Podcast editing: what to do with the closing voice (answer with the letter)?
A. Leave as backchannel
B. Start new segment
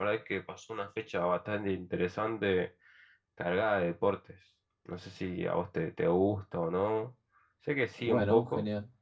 B